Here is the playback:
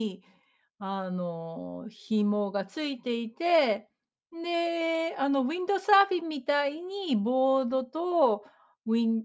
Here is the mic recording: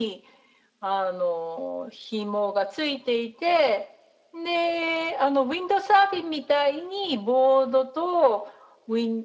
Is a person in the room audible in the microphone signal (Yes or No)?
No